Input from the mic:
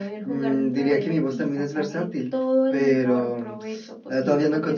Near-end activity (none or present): none